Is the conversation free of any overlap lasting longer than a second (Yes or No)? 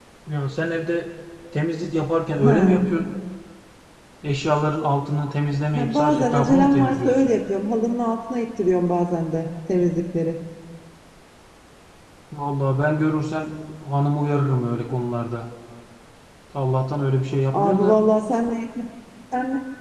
No